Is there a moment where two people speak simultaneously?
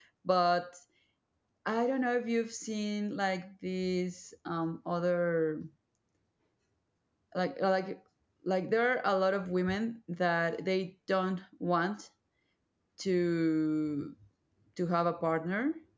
No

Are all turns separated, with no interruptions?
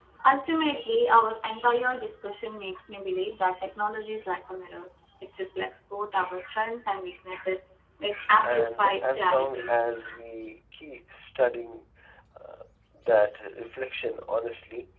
No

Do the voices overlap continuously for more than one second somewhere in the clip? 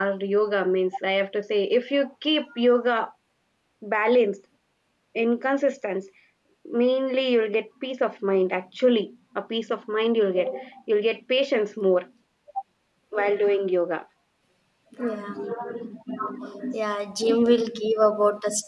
No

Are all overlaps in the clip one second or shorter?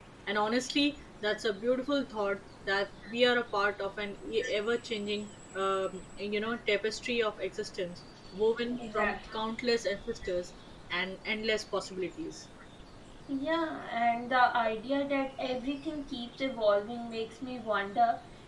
Yes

